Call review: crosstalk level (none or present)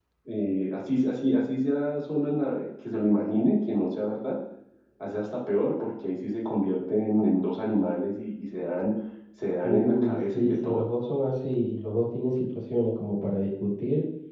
present